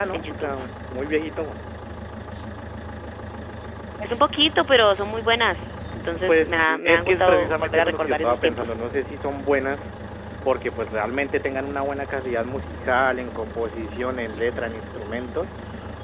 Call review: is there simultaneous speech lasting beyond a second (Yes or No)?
Yes